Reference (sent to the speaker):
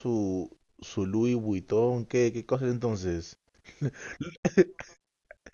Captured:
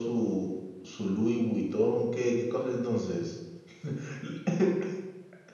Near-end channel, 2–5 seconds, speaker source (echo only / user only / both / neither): echo only